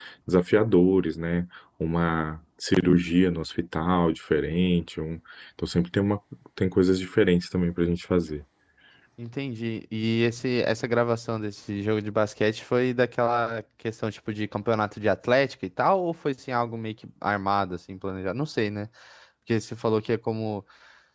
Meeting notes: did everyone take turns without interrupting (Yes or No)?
Yes